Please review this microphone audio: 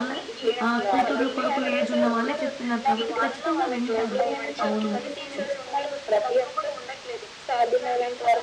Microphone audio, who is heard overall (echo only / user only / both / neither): both